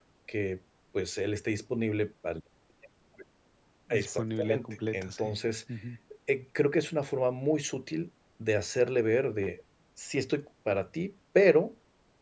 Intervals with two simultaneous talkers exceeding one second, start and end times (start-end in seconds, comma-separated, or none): 3.9-5.3